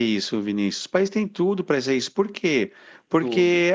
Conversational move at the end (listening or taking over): listening